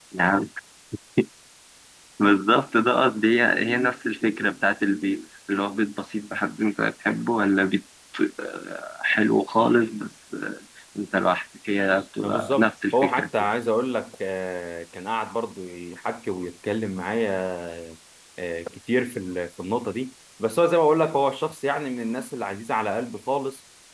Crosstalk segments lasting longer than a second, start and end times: 12.2-13.5

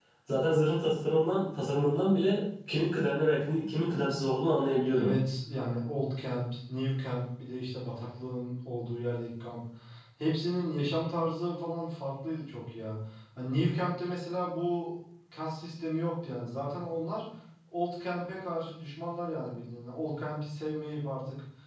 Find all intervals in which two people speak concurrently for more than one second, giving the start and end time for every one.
none

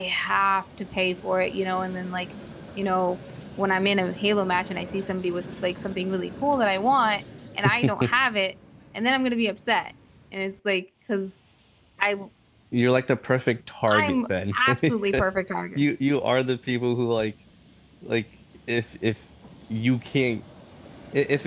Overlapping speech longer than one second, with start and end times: 13.9-15.3

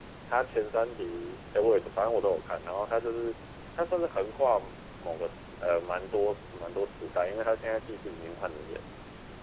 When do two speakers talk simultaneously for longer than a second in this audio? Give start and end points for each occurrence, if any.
none

